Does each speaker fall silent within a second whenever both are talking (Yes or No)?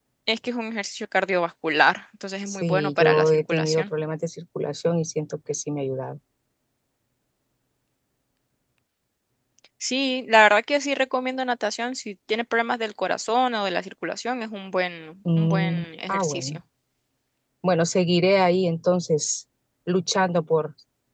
No